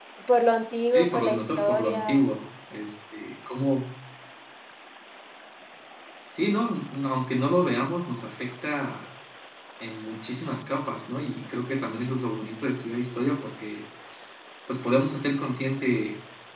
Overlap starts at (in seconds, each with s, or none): 0.9 s